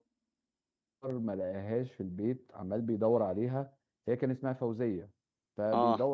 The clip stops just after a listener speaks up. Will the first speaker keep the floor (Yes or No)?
Yes